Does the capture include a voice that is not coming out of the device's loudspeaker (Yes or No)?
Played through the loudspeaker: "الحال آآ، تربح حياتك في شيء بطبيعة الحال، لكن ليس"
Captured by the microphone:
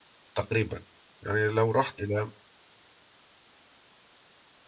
Yes